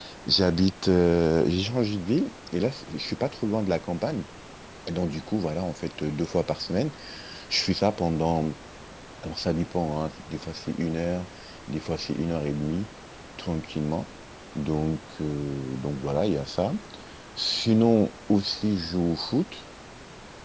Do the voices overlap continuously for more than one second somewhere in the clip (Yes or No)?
No